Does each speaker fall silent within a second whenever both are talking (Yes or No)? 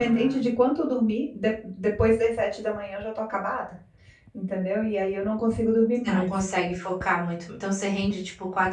Yes